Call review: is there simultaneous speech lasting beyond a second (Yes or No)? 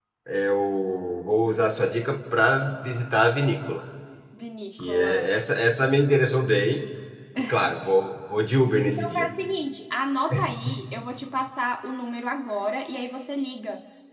No